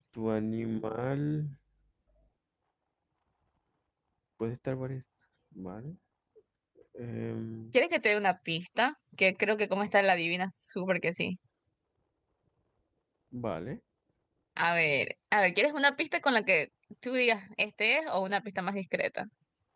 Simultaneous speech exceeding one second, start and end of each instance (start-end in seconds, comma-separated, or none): none